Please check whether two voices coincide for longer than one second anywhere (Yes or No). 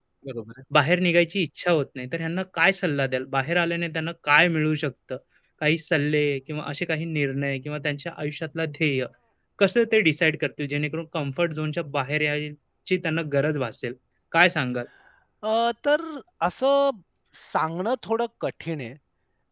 No